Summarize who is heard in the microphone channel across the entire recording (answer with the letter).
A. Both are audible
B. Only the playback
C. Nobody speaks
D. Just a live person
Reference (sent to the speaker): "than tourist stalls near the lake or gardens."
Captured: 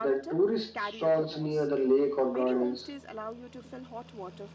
A